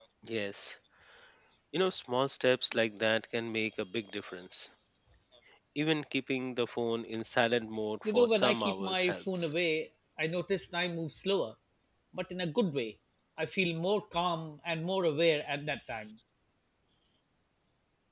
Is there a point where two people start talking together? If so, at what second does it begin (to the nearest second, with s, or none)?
8 s